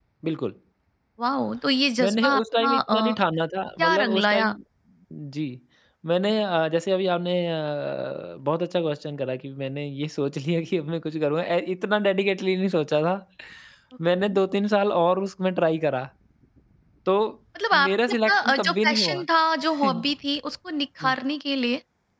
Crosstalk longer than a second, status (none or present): present